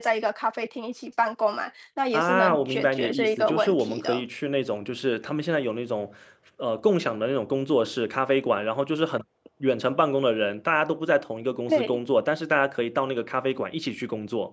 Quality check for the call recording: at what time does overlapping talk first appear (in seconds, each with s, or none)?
2.1 s